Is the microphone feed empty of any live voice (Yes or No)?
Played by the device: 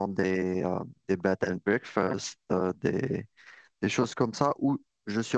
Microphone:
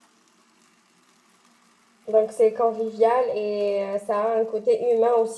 No